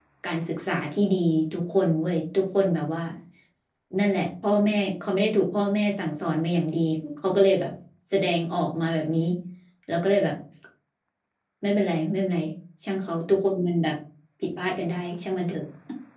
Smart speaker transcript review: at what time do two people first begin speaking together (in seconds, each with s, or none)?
none